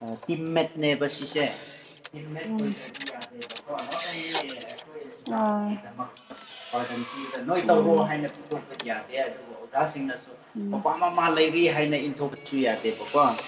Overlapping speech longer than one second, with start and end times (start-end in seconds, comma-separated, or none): none